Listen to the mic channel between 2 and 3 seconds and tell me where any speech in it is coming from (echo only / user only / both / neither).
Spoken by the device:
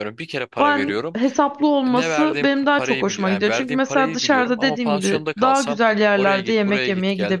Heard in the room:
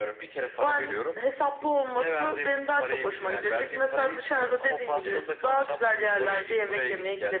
echo only